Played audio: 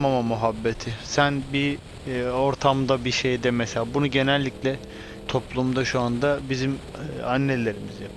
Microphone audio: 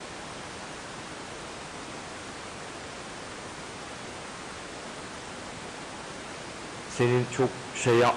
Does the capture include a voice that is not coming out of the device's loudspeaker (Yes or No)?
Yes